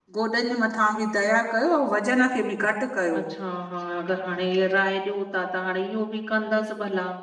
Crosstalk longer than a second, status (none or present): none